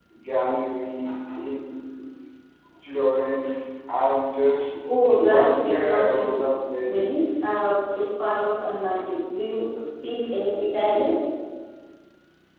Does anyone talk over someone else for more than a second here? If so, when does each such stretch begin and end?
5.2-6.4

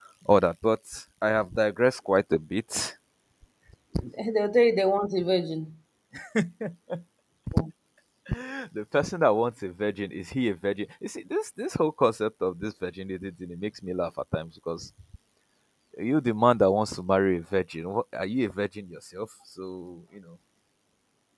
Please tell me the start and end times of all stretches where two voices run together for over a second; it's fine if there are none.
none

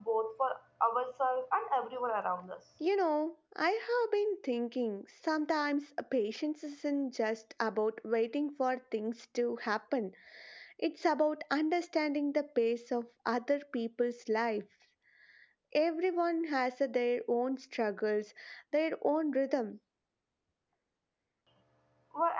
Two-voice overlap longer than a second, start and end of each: none

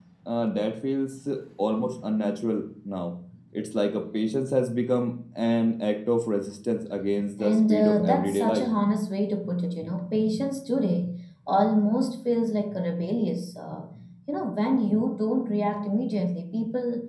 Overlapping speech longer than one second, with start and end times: 7.4-8.7

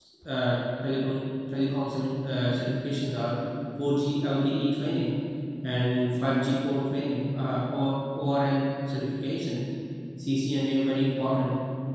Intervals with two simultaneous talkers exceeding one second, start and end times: none

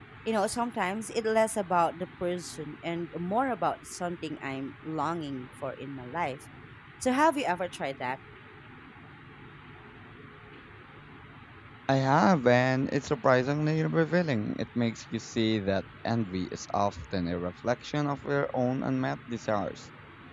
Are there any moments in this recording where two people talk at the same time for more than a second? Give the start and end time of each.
none

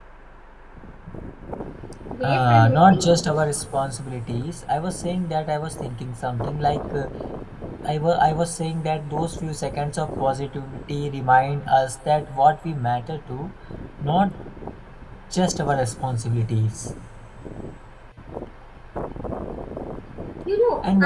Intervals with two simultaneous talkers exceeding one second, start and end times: 2.2-3.4

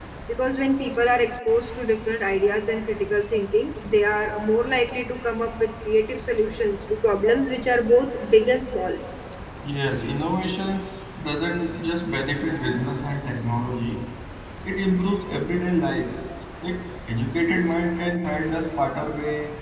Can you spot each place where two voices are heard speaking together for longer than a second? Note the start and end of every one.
none

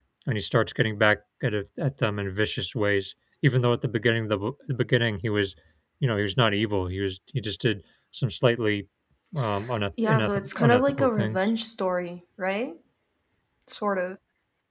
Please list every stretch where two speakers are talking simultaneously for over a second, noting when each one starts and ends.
10.0-11.4

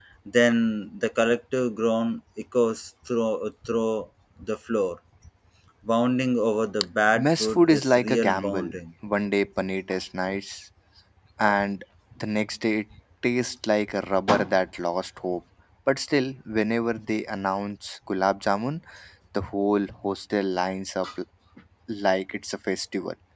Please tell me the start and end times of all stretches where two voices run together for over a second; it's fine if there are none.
7.1-8.8

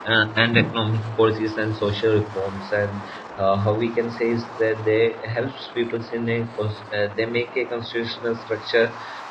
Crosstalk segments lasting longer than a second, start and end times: none

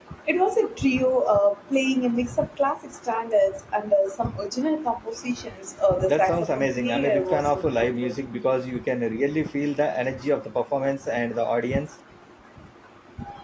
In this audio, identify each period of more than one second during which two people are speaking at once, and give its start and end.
6.1-8.2

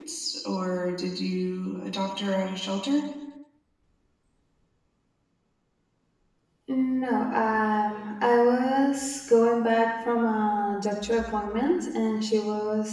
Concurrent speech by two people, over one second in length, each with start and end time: none

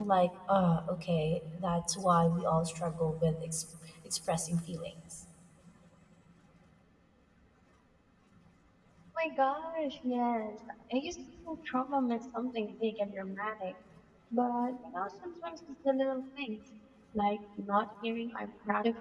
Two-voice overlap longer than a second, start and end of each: none

